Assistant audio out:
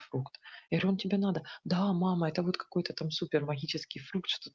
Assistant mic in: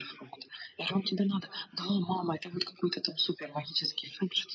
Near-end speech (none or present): none